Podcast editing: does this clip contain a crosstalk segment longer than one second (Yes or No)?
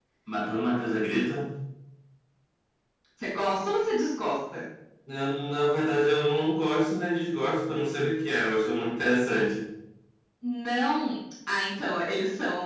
No